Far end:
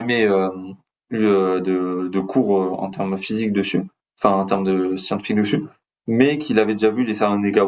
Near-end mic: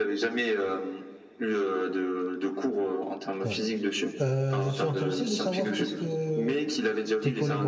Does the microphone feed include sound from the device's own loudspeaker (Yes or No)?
Yes